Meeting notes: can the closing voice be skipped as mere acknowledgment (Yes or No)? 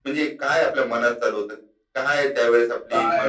No